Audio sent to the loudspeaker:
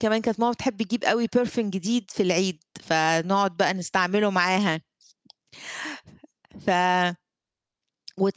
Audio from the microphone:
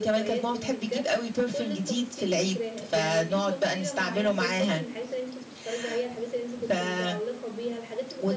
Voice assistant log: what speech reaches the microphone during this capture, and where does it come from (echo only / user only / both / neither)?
both